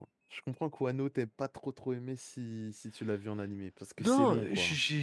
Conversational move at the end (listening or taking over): taking over